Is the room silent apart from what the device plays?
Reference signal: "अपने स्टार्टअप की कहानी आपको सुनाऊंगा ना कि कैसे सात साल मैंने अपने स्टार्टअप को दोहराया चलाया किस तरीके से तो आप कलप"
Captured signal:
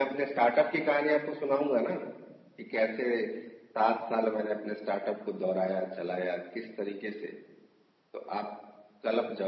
Yes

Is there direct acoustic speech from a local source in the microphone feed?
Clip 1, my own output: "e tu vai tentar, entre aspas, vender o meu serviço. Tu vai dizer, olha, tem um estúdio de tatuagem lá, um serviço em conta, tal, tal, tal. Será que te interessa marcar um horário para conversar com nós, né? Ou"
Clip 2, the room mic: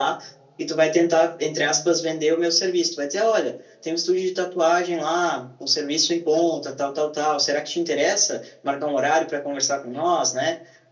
No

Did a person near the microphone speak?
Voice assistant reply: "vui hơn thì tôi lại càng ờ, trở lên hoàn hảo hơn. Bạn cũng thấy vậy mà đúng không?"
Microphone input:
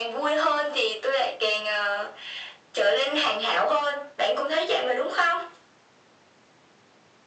No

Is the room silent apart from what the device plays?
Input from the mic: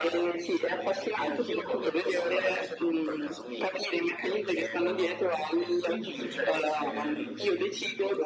No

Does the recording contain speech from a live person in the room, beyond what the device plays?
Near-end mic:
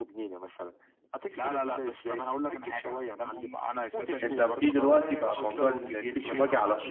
Yes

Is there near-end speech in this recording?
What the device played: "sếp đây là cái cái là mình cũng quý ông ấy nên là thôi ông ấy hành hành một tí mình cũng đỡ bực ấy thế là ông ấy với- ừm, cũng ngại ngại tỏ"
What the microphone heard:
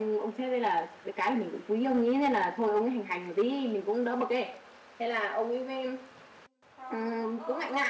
Yes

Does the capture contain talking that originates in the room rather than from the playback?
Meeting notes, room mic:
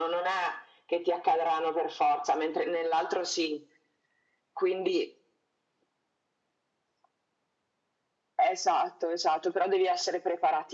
No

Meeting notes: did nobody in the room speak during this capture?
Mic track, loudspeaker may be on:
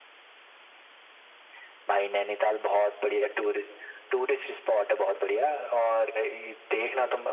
Yes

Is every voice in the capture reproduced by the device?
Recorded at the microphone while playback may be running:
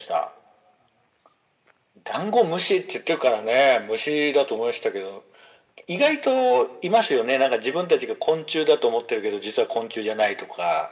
Yes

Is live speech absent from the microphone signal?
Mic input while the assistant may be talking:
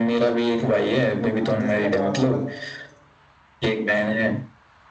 No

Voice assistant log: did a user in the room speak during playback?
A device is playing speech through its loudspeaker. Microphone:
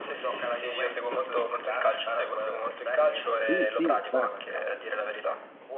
Yes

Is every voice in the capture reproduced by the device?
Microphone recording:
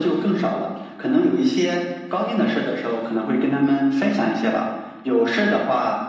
Yes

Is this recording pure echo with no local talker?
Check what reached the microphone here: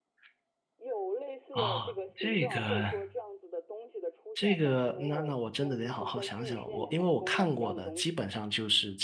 No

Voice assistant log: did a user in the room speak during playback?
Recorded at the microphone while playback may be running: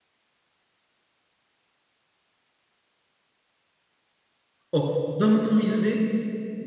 Yes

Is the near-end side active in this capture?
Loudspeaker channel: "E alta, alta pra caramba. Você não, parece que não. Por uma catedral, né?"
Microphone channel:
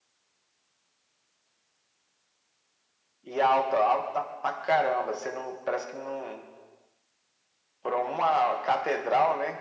No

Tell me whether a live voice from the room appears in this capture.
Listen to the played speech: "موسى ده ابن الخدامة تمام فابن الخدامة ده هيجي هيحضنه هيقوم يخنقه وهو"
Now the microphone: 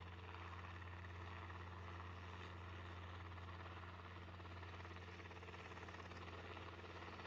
No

